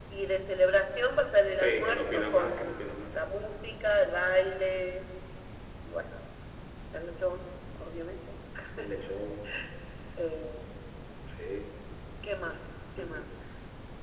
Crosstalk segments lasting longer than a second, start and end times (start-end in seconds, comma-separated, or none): 1.6-3.2